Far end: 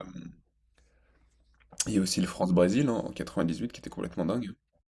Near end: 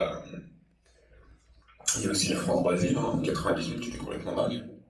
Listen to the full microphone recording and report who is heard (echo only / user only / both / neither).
echo only